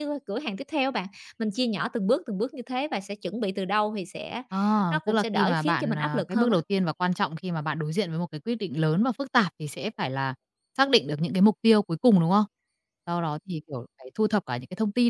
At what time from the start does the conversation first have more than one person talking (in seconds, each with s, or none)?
4.9 s